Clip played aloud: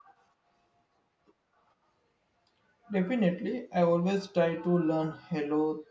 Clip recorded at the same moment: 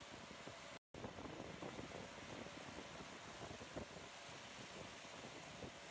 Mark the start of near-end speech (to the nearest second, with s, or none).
none